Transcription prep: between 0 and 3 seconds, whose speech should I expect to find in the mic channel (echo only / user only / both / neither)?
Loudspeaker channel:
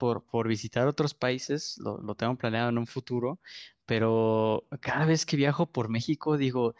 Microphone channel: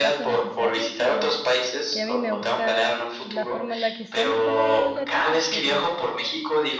both